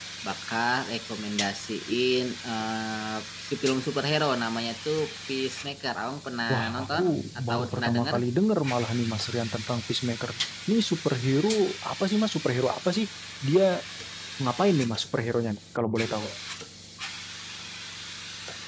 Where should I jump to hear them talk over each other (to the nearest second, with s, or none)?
6 s